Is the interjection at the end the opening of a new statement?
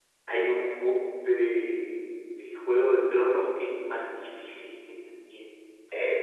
Yes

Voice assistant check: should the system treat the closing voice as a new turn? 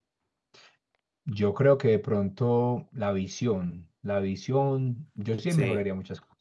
No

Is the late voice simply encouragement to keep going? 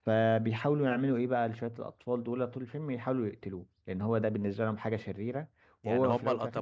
No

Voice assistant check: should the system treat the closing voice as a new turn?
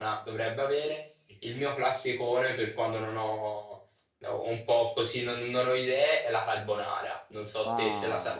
Yes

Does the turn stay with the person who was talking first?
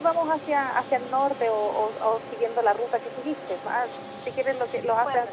Yes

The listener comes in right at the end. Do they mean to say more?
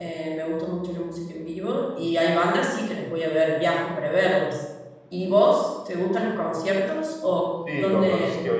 Yes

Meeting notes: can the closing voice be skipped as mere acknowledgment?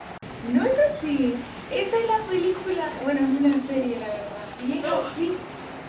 Yes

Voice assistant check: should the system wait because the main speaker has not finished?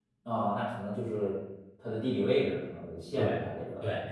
No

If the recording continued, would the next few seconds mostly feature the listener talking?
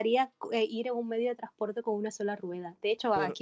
No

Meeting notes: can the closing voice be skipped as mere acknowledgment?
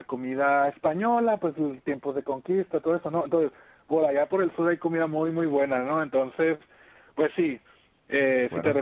Yes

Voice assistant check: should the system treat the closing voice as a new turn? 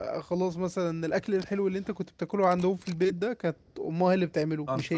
No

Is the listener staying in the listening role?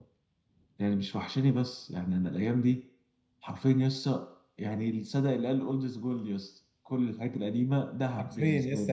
No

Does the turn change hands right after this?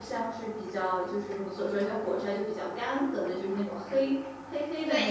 Yes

